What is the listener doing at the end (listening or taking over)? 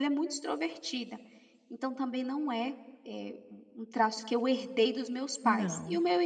listening